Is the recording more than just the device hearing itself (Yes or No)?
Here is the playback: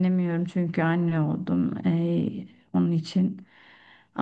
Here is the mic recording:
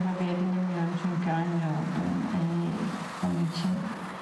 No